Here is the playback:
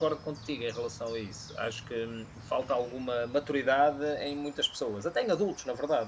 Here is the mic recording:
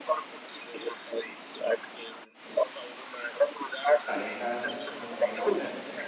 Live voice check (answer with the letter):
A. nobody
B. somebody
B